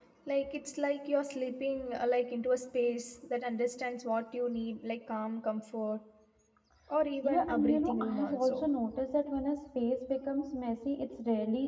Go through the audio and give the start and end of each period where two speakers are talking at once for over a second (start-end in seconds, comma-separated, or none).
7.2-8.7